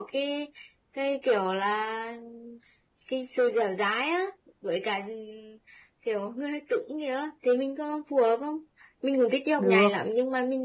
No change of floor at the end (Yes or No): Yes